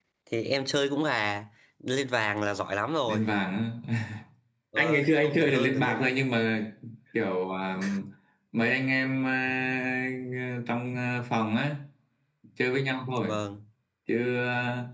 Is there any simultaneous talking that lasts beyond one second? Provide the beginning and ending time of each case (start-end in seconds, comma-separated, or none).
4.8-6.1